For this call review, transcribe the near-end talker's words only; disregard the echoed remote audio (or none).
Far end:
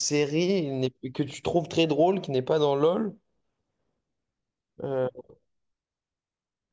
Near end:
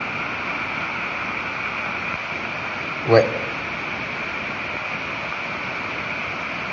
Ouais,